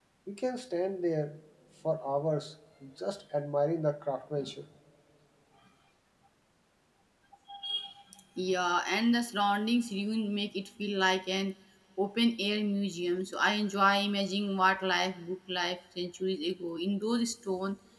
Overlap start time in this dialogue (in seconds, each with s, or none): none